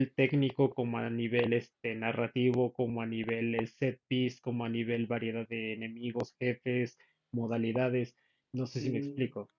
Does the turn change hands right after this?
Yes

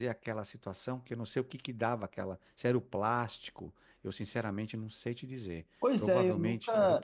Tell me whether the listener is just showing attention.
No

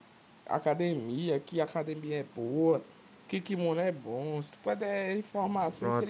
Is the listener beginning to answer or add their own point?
Yes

